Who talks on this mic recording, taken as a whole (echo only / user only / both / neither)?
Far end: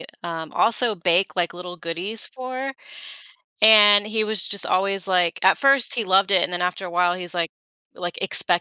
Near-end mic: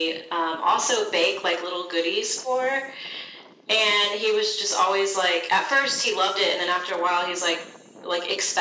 echo only